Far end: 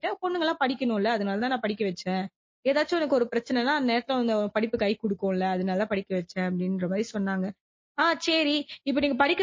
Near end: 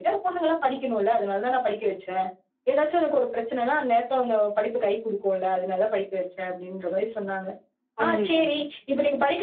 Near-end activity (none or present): present